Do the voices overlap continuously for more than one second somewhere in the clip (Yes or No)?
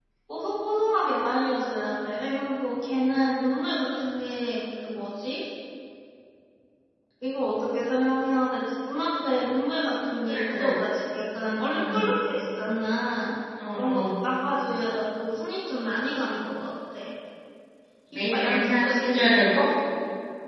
Yes